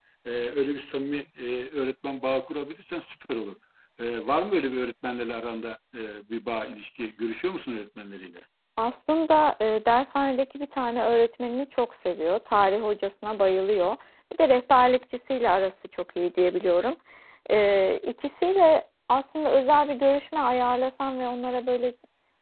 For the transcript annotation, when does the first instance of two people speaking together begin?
none

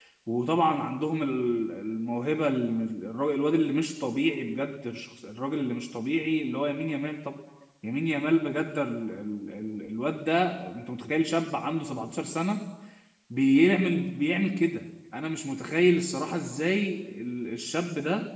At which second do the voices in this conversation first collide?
none

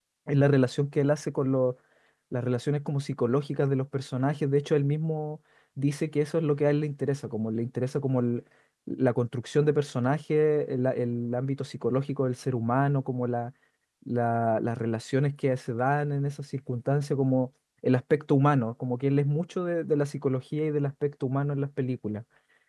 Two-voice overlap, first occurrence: none

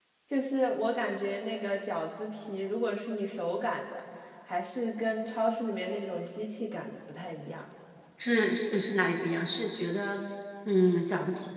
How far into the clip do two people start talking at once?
none

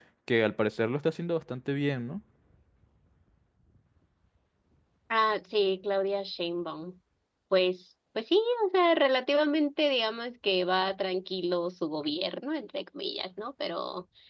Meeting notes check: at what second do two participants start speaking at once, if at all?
none

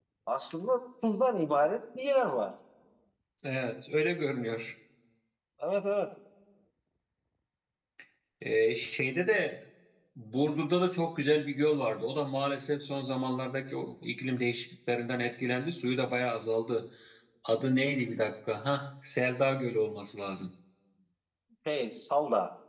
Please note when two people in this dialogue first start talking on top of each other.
none

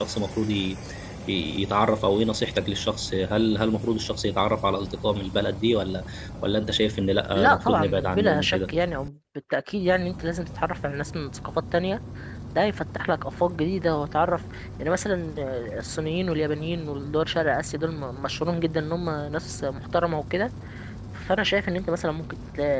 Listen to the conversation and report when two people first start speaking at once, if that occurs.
7.3 s

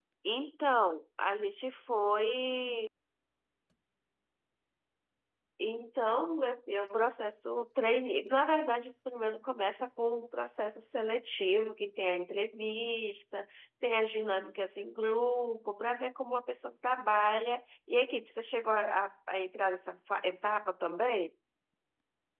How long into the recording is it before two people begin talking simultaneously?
none

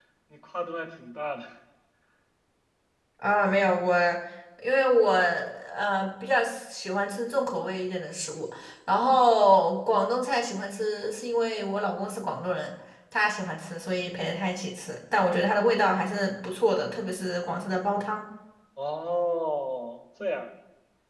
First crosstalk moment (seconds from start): none

